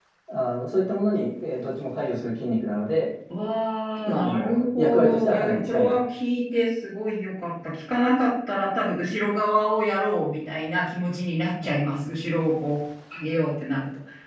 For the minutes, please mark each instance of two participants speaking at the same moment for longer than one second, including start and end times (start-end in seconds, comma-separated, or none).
4.0-6.0